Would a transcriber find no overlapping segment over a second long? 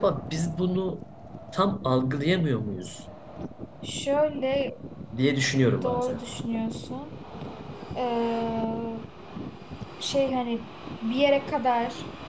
Yes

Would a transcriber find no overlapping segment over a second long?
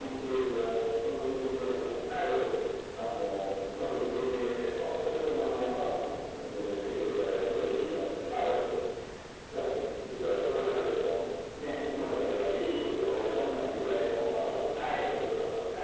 Yes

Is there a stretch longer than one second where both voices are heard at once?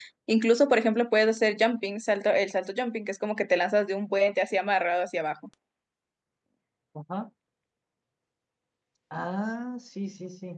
No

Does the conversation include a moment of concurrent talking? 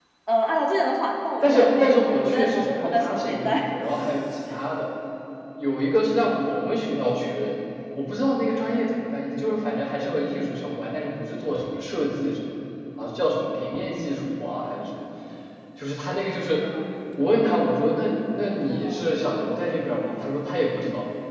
Yes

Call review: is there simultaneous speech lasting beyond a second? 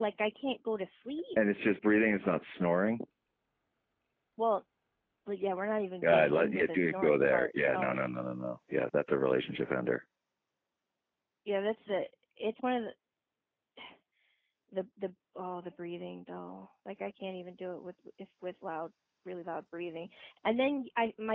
Yes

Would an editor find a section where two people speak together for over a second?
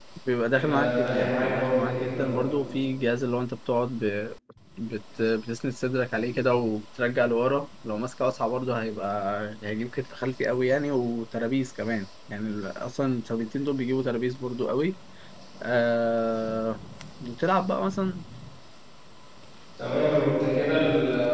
Yes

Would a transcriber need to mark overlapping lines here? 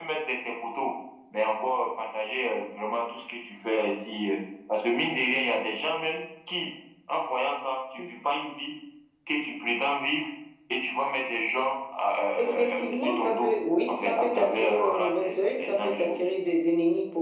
Yes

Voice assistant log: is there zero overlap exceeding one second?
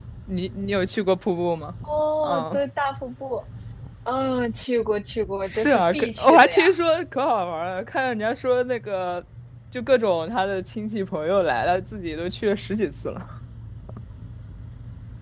No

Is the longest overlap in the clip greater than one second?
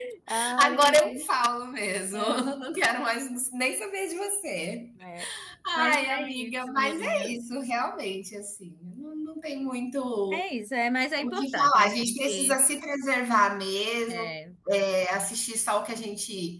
Yes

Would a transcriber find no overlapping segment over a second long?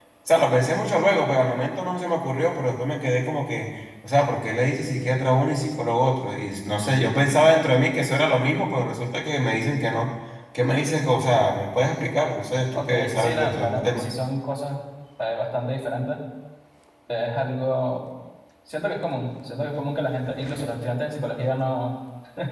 No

